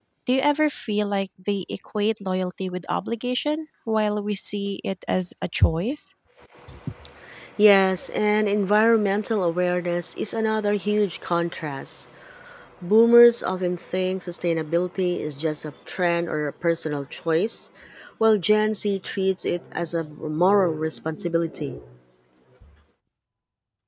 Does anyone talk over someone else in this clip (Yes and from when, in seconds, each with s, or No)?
No